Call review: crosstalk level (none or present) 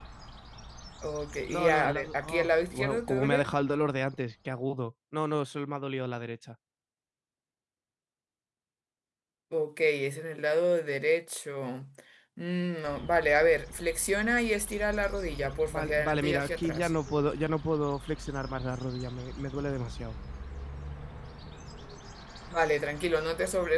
present